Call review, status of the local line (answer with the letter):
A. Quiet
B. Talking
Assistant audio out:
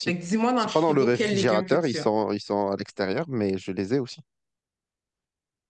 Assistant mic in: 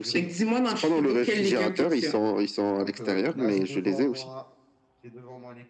B